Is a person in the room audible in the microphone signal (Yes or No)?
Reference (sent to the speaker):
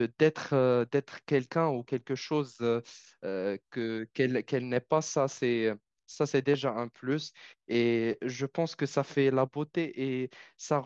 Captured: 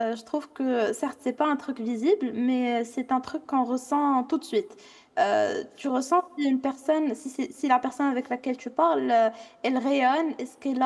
Yes